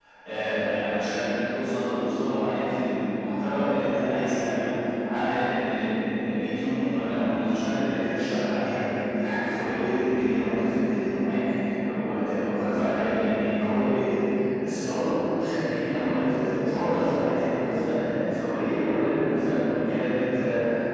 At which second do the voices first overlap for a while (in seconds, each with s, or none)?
none